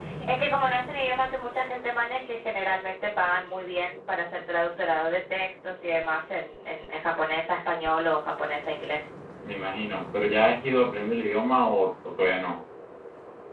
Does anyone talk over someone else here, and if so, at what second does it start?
none

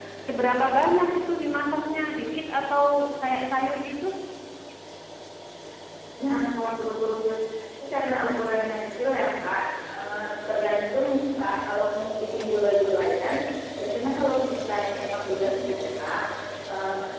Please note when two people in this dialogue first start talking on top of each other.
none

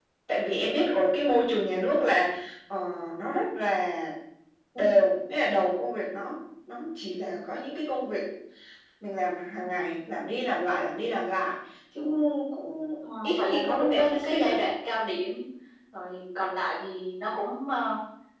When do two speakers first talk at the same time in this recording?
13.2 s

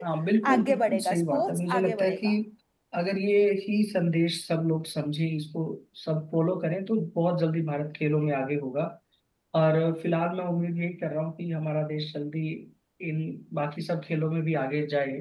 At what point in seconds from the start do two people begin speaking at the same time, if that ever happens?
0.5 s

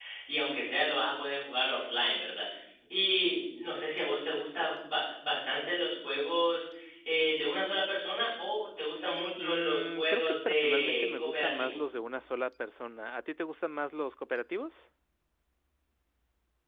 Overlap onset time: 9.4 s

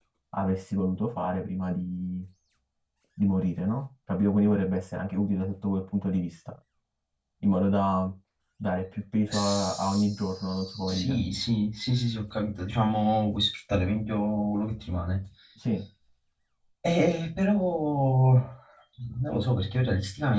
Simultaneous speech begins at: 9.3 s

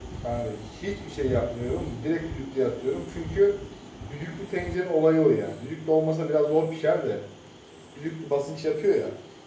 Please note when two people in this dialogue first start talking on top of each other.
none

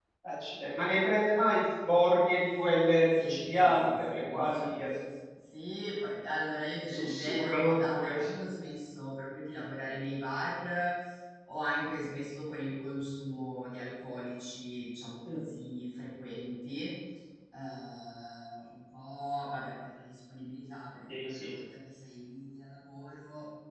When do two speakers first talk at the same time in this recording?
3.2 s

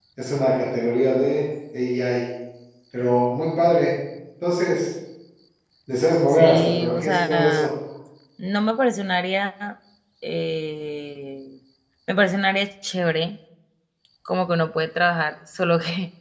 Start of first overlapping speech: 6.3 s

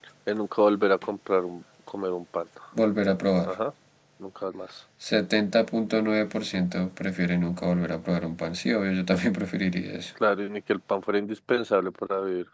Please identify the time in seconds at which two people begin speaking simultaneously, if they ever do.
none

